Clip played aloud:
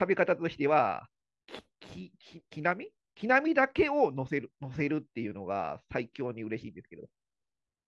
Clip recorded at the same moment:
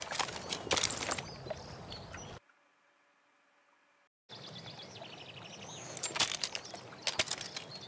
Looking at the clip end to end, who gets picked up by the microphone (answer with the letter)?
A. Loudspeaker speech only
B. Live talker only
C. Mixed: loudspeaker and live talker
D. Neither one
D